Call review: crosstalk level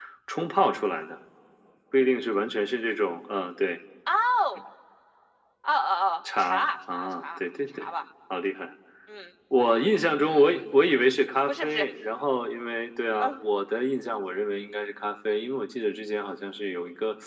present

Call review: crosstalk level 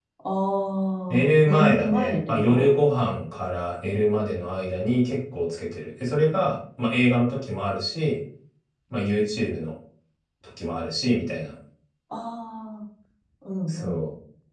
present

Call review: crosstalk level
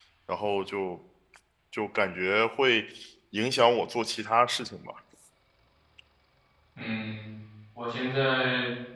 none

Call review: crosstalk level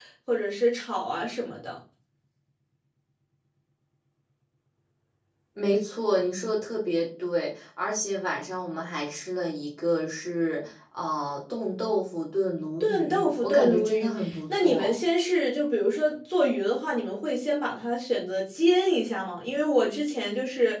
present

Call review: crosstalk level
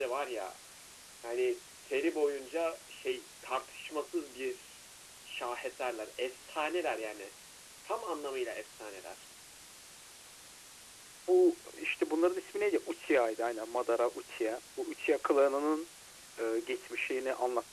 none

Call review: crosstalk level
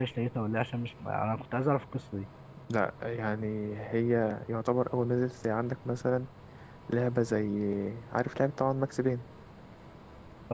none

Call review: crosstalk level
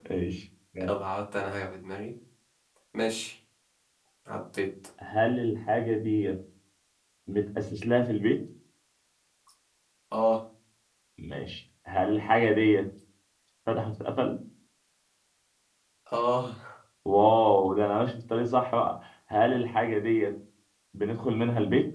none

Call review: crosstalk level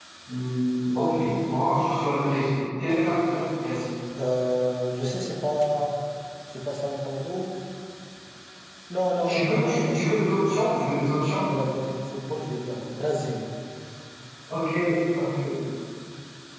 present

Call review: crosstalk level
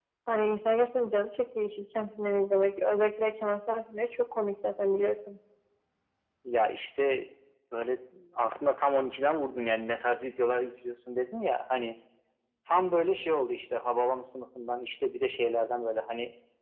none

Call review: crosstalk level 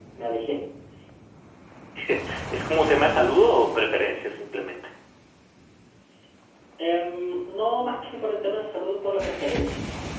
none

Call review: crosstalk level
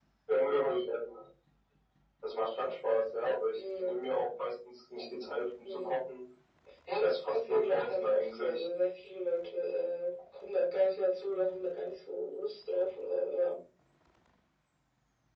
present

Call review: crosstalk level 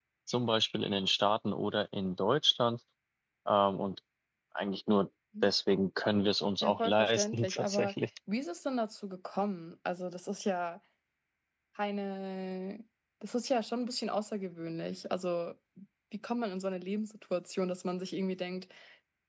present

